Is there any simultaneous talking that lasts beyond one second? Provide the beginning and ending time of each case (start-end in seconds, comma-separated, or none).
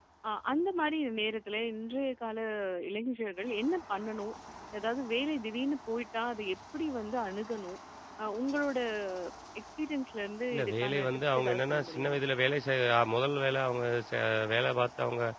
10.5-12.2